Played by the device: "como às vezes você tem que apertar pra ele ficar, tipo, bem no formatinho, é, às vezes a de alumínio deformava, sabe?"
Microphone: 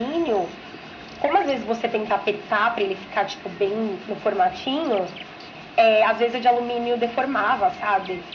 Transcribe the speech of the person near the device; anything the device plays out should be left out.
none

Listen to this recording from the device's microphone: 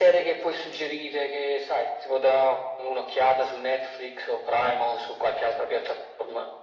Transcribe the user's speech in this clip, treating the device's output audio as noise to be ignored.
none

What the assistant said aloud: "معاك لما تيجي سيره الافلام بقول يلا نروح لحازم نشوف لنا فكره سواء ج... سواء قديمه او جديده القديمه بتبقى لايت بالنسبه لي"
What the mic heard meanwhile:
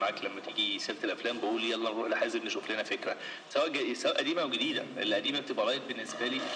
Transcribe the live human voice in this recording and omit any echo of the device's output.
ده زي ايه

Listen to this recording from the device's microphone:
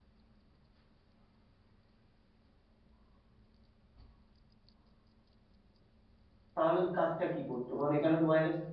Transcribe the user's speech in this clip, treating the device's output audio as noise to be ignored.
তাহলে তো কাজটা কি করতো কারণ এখানে তো বাইরে

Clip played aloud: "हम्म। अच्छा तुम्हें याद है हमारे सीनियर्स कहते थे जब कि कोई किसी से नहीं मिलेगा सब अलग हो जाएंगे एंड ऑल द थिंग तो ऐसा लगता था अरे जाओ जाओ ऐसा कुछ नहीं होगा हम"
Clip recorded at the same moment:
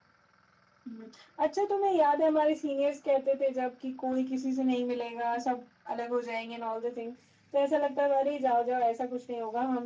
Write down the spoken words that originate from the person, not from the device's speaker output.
none

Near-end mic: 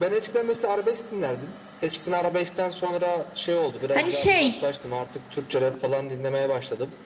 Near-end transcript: Hani şey

